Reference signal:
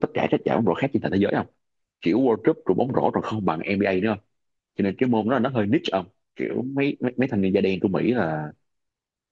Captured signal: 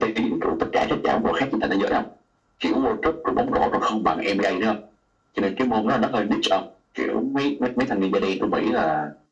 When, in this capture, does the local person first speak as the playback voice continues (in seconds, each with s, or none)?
none